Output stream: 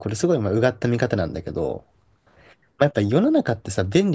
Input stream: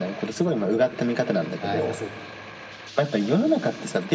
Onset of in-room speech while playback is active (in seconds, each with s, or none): 1.6 s